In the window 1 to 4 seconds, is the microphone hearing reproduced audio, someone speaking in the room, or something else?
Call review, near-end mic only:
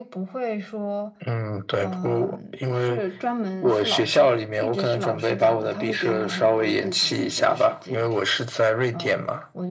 echo only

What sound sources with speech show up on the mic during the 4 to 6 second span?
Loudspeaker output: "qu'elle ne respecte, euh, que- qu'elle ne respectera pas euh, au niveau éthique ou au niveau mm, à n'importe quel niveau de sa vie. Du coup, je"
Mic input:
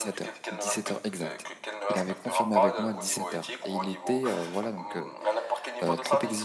both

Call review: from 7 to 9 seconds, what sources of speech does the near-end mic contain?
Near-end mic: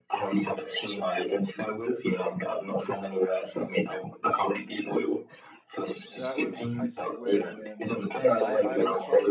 both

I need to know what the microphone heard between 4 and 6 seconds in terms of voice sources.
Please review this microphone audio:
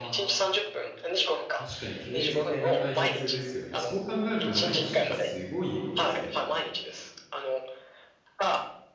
both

